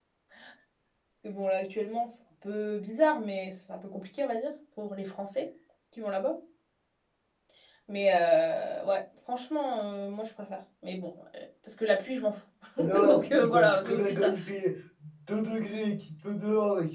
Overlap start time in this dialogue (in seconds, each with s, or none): 13.1 s